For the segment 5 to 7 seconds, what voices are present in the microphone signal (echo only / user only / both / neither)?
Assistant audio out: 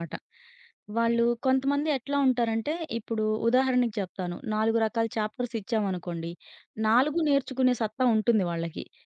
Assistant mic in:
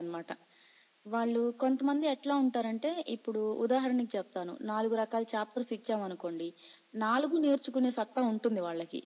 echo only